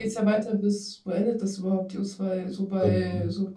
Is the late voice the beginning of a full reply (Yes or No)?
No